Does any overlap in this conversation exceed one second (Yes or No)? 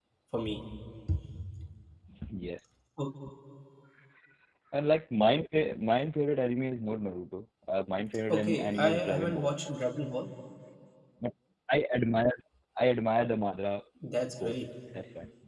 Yes